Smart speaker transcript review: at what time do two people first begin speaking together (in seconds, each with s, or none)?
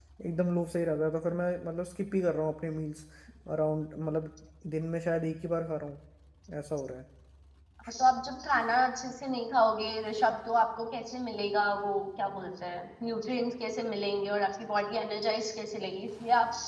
none